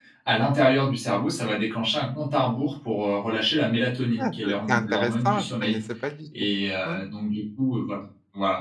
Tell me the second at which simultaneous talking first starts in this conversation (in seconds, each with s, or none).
4.2 s